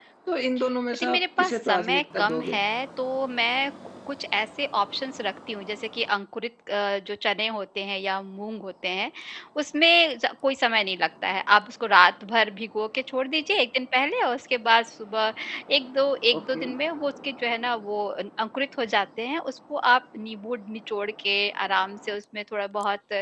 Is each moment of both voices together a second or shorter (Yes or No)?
No